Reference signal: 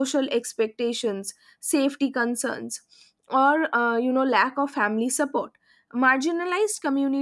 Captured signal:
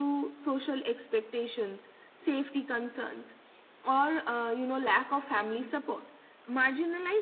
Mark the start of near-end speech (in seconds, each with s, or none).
none